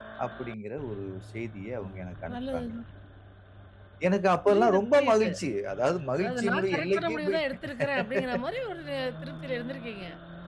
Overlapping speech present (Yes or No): Yes